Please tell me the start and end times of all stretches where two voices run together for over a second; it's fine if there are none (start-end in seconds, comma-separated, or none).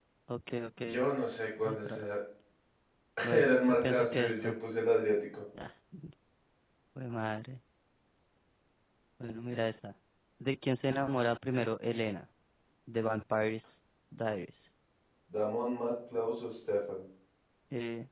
3.3-4.5